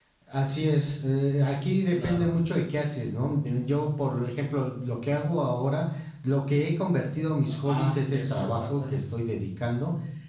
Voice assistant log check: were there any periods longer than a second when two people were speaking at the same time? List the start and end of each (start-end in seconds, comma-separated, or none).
7.5-9.0